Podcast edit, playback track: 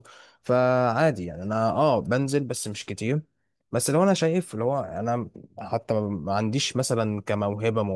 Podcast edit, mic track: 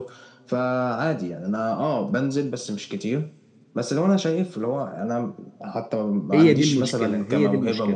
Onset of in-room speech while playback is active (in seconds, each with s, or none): 6.3 s